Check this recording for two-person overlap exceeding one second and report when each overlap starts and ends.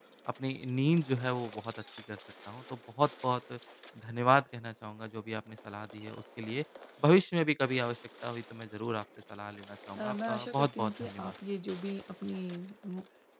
10.0-11.3

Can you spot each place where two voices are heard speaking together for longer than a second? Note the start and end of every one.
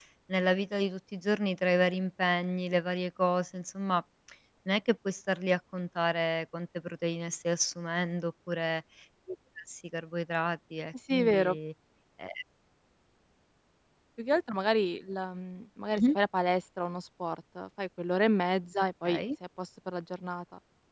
none

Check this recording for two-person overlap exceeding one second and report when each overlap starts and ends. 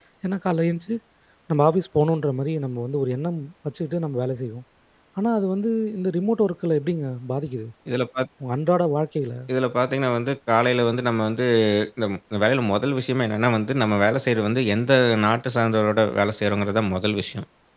none

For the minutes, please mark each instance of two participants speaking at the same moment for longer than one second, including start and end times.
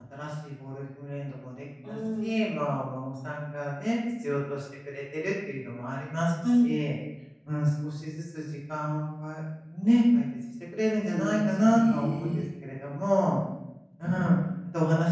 11.1-12.4

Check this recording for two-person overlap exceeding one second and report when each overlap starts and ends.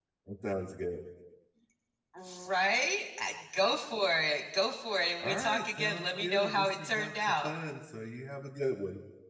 5.2-7.5

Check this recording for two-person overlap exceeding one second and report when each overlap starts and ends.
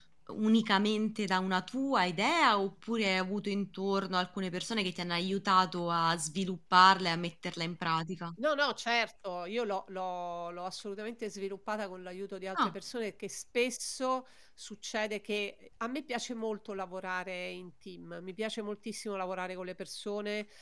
none

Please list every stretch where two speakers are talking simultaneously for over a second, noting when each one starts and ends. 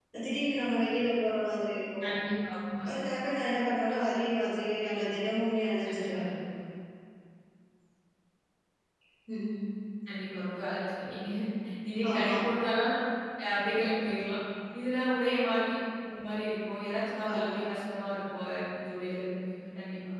none

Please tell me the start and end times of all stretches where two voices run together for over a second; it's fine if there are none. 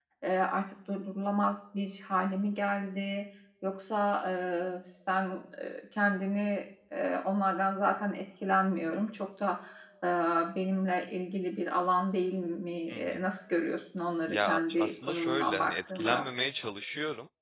14.3-16.2

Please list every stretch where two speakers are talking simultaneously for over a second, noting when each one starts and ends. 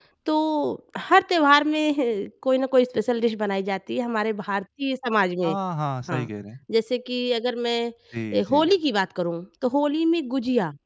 none

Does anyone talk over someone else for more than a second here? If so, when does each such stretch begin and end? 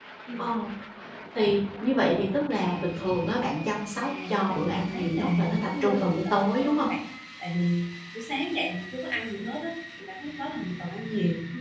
4.0-6.9

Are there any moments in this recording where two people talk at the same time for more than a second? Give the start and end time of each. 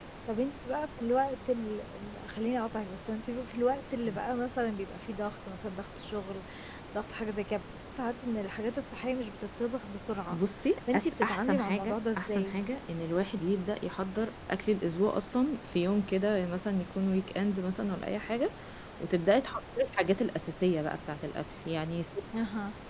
10.9-12.6

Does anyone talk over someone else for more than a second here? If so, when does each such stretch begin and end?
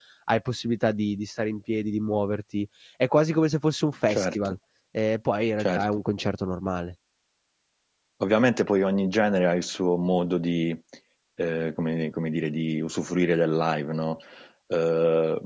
none

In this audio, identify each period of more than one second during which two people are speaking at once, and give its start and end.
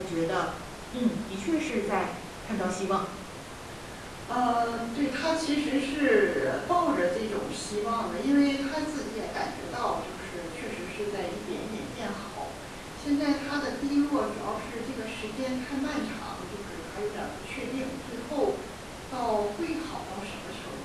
none

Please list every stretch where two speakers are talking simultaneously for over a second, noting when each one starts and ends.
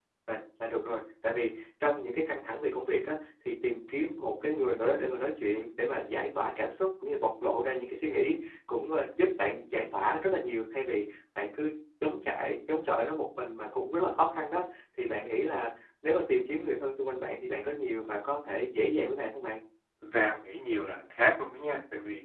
none

